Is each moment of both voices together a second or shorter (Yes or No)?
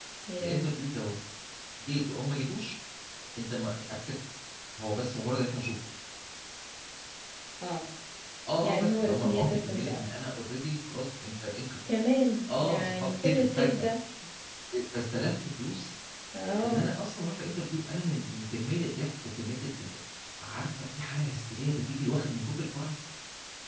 No